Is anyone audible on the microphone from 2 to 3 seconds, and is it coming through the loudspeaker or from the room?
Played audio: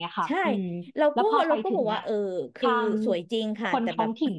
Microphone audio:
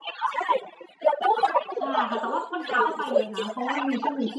both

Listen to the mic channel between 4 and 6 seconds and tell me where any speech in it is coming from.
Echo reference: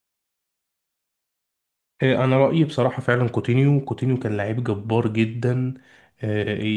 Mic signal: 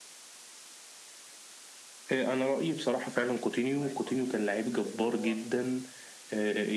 both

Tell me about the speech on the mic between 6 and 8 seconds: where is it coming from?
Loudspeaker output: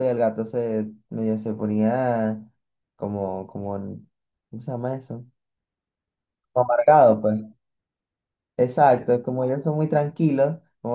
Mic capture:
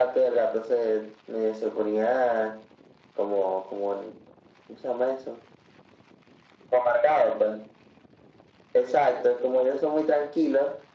echo only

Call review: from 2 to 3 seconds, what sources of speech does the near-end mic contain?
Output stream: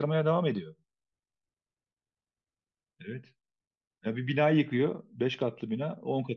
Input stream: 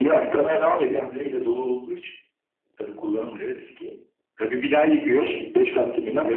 user only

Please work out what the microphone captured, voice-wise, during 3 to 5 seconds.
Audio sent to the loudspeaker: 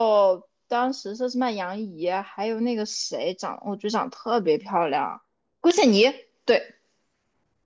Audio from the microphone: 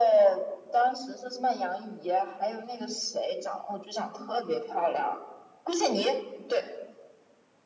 echo only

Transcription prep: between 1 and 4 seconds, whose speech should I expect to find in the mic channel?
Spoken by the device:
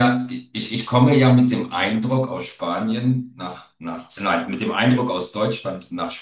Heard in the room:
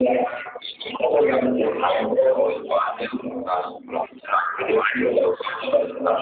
echo only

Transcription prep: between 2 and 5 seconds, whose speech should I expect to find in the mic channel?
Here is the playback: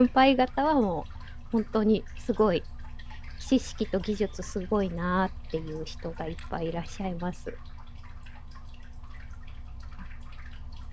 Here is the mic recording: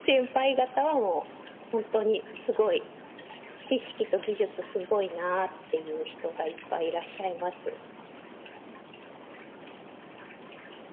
echo only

